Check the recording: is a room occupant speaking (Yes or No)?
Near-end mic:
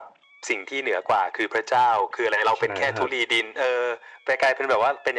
Yes